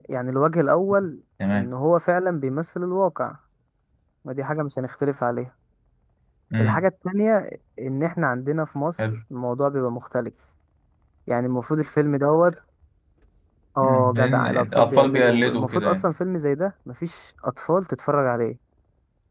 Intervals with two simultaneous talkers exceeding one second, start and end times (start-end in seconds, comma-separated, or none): 13.8-16.1